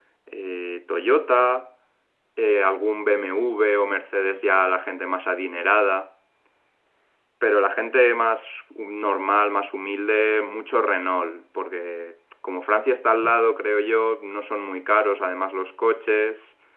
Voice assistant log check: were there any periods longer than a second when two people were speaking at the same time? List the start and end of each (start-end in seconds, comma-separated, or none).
none